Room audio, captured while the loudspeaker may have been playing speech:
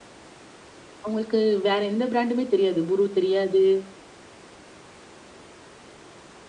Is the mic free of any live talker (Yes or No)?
No